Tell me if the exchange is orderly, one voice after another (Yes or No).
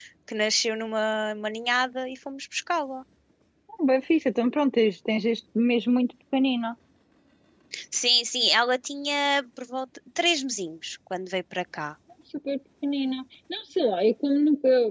Yes